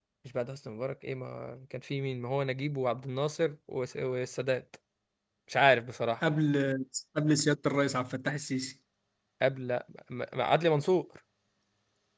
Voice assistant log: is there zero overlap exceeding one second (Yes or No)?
Yes